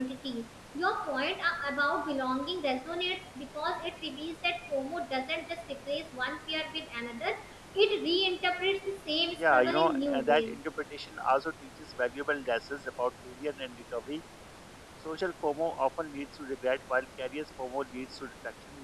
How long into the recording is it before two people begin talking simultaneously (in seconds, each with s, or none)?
9.4 s